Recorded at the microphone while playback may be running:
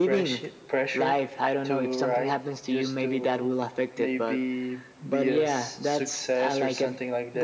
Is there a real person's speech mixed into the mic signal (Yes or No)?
No